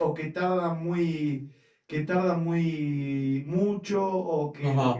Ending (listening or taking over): taking over